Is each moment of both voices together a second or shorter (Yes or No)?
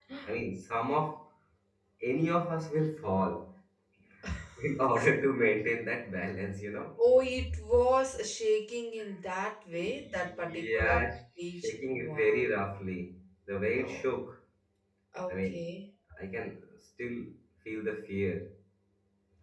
No